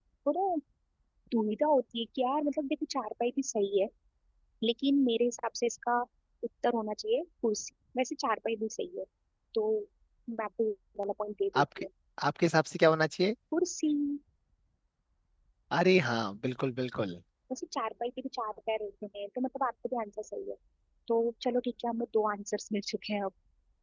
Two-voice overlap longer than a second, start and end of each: none

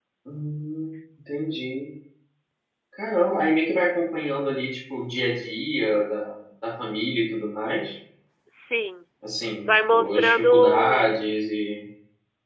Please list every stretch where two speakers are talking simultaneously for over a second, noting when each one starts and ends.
9.6-11.1

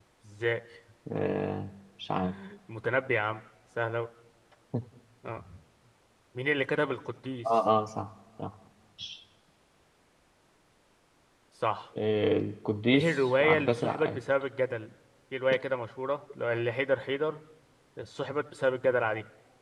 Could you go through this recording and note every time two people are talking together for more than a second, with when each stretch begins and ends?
12.9-14.2

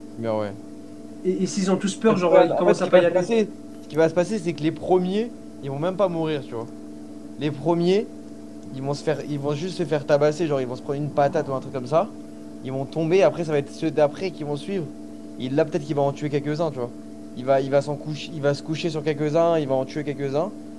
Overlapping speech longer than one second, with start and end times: 2.1-3.3

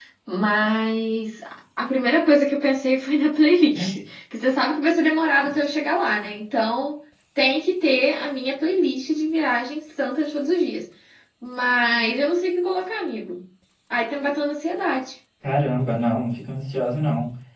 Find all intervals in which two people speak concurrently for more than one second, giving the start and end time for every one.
none

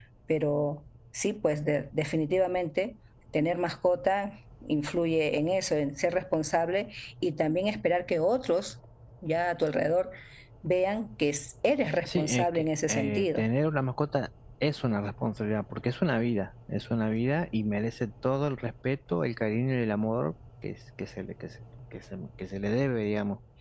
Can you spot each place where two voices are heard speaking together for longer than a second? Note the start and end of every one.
12.1-13.4

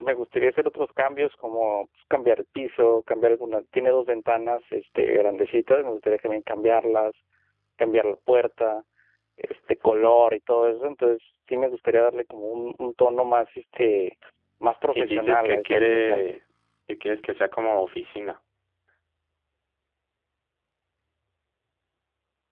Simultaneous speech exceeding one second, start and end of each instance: 14.9-16.2

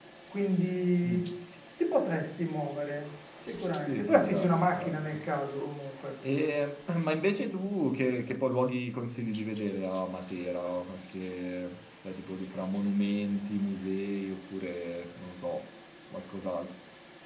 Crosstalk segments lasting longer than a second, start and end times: 3.9-5.2

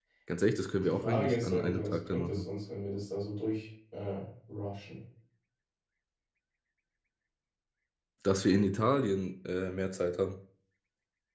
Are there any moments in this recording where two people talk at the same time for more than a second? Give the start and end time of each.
0.8-2.4

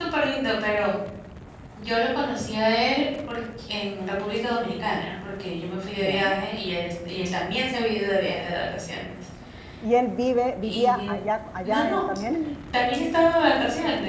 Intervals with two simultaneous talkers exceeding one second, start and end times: none

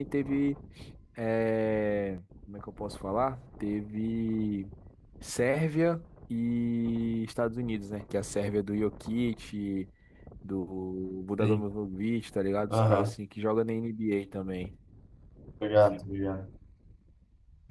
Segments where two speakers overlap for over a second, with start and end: none

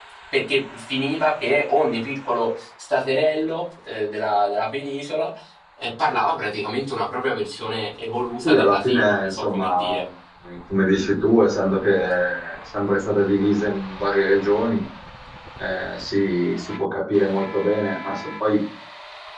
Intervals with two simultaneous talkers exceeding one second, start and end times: 8.4-10.0

